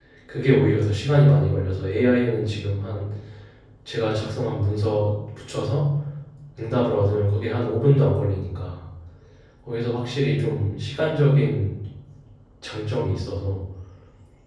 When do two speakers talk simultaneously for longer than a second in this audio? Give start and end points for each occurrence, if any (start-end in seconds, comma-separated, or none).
none